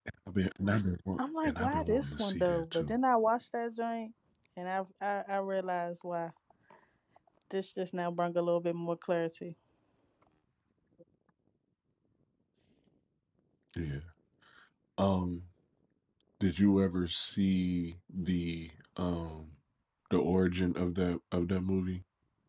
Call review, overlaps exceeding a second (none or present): present